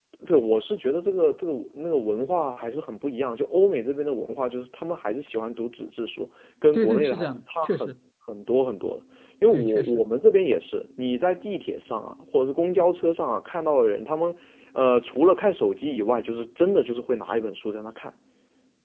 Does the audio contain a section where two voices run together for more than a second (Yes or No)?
Yes